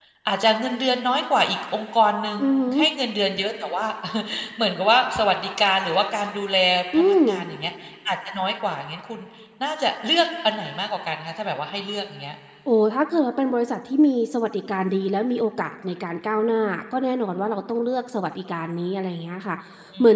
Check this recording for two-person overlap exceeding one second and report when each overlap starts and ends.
none

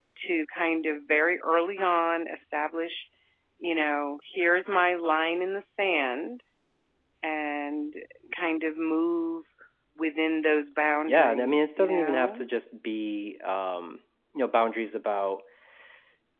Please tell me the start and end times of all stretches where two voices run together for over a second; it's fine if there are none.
11.1-12.4

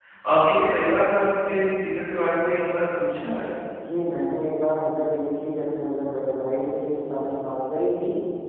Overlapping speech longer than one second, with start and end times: none

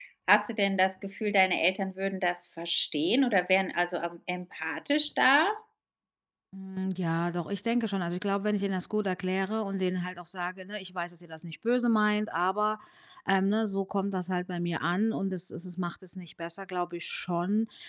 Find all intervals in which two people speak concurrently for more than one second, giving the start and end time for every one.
none

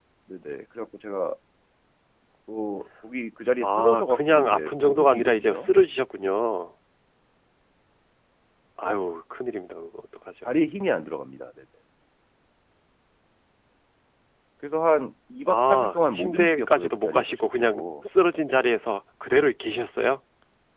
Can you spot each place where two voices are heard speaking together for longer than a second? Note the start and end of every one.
3.6-5.7, 15.5-17.8

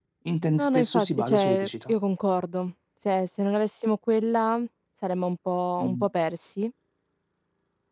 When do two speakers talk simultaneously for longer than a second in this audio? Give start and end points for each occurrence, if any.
0.6-1.9

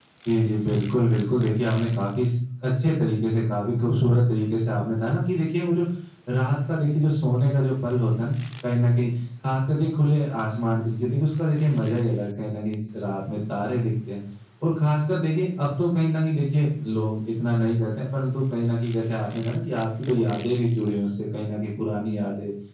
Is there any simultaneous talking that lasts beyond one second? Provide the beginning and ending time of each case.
none

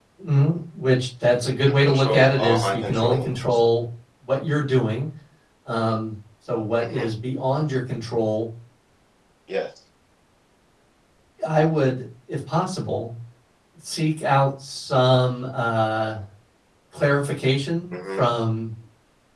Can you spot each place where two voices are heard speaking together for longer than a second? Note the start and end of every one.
1.8-3.6

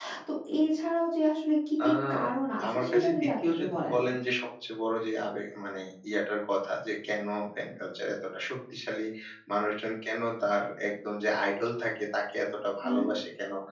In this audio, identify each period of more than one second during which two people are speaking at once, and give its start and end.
2.7-4.0

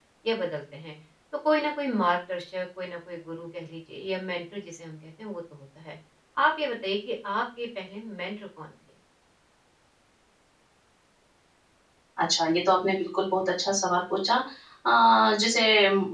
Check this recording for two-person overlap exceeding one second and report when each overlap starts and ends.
none

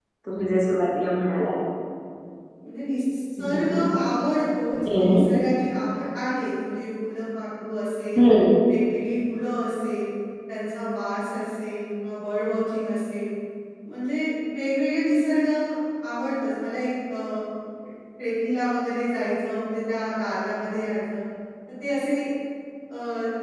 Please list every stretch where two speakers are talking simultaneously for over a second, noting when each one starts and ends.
none

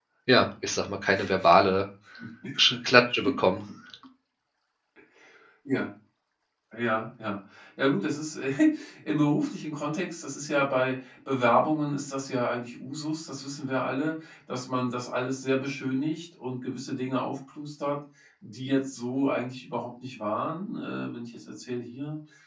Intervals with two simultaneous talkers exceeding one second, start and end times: none

